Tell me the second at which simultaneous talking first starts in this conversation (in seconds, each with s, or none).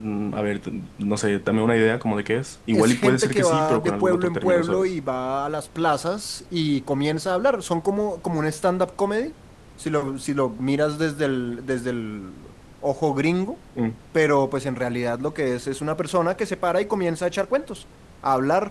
2.7 s